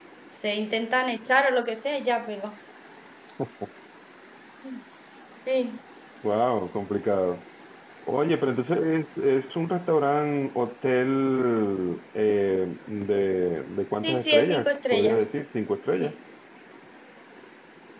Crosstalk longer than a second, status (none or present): present